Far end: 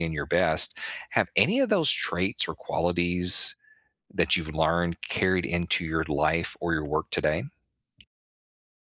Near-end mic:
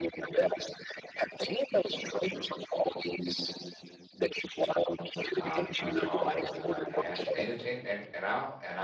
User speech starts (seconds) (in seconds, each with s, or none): 5.3 s